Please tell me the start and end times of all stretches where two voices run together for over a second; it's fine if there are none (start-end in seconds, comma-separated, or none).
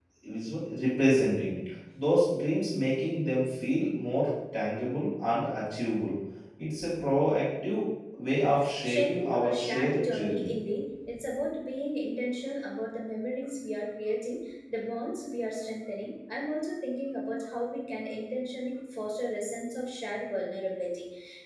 8.8-10.7